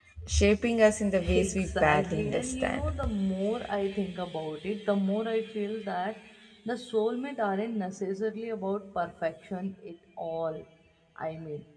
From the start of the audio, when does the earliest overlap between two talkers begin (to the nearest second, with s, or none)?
1 s